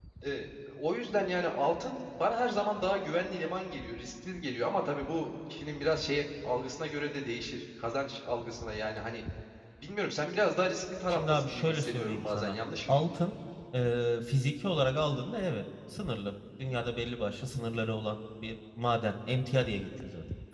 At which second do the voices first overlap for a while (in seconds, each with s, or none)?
11.1 s